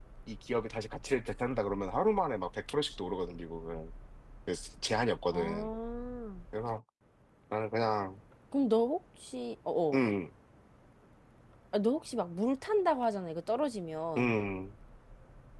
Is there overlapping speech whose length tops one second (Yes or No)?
No